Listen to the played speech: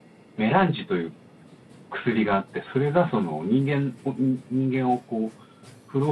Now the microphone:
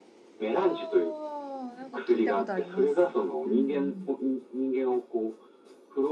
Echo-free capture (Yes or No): No